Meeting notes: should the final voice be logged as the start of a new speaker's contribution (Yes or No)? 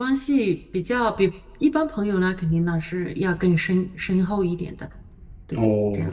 Yes